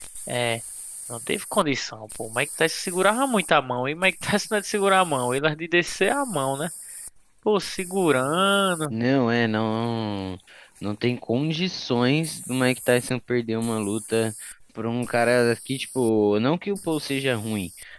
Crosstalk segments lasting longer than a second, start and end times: none

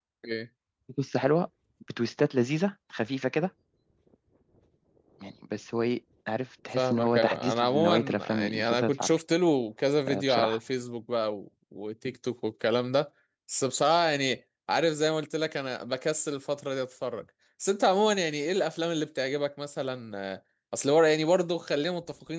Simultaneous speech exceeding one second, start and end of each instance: 6.8-9.2

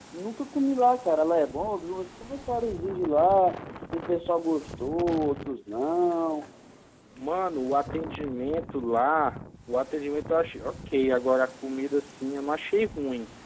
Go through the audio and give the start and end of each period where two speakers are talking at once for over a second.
none

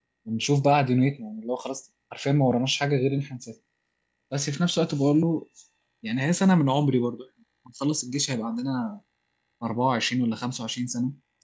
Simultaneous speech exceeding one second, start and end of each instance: none

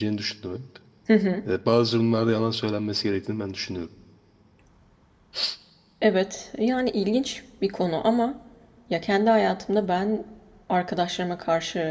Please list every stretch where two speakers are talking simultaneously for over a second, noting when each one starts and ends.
none

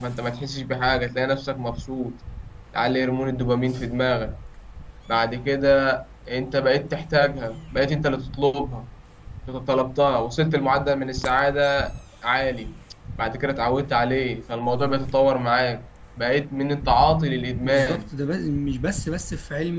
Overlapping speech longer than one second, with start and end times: none

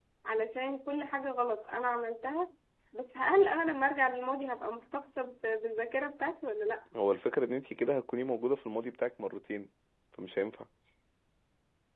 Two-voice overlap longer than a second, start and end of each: none

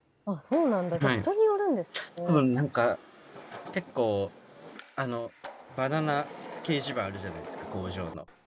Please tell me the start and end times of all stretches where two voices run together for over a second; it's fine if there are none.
none

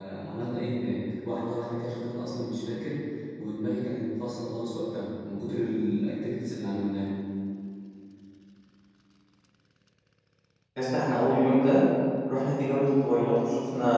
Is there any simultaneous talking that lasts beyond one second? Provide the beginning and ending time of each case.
none

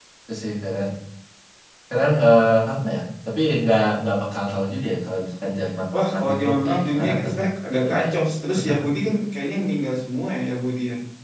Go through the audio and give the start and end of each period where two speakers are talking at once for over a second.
5.9-7.4

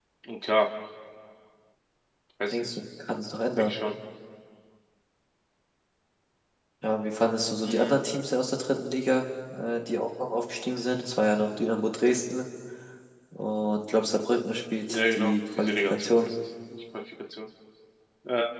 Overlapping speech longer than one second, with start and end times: 14.8-16.3

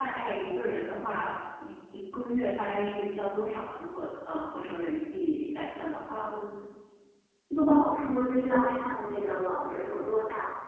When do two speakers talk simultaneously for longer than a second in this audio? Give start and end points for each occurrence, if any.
none

